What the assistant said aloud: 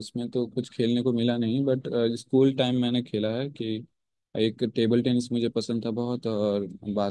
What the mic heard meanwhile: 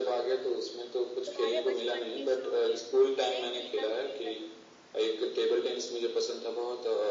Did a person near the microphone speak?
Yes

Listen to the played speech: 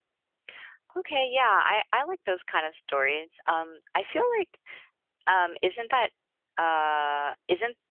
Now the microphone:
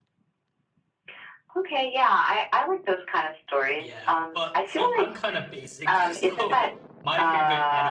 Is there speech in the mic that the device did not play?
Yes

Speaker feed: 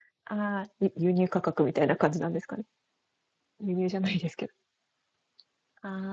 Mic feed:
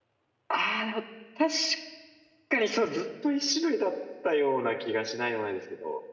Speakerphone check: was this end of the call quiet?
No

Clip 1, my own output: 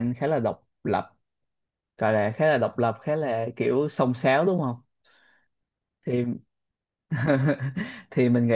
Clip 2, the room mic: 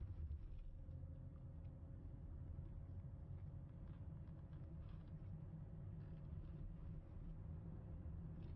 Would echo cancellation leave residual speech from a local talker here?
No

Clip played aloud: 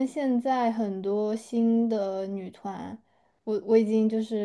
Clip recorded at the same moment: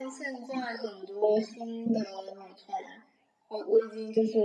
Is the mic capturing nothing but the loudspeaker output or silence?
Yes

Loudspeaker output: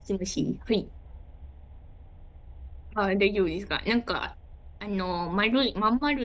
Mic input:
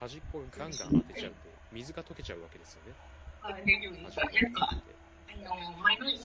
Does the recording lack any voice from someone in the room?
No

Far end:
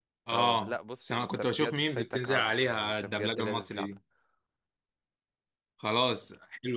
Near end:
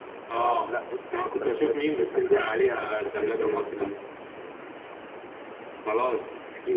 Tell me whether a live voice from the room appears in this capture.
No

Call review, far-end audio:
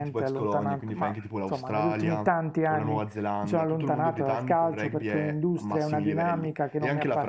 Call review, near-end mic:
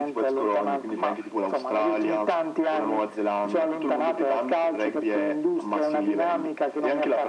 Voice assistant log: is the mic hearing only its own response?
Yes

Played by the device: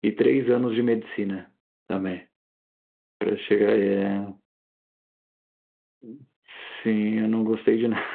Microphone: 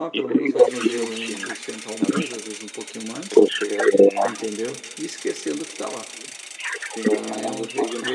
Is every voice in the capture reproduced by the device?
No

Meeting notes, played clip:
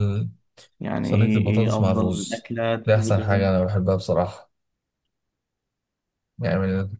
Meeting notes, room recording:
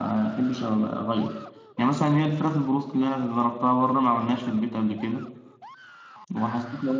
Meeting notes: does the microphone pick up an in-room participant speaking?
Yes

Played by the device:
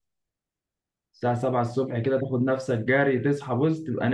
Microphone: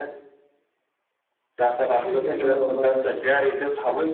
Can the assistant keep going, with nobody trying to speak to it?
No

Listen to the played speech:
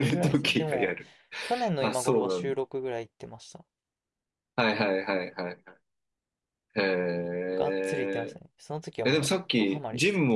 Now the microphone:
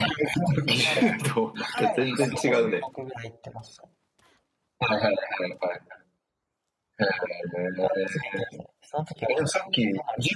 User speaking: Yes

